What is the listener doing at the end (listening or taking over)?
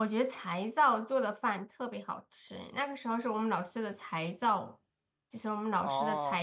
listening